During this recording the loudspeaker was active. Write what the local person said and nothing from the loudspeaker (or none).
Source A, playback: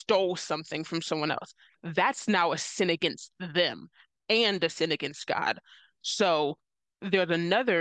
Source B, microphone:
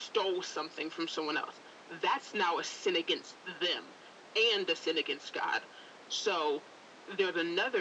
none